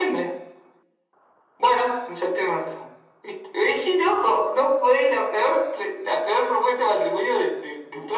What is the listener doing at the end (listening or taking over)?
taking over